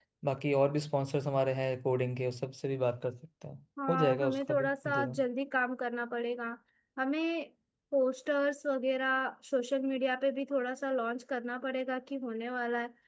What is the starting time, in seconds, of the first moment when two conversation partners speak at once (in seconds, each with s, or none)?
3.8 s